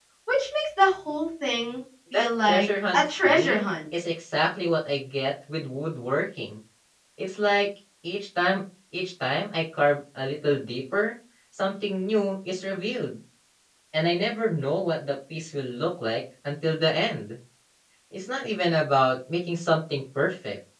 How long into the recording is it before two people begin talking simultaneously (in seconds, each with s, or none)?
2.1 s